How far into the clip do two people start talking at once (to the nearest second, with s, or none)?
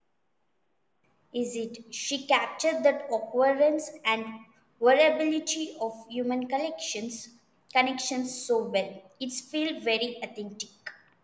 none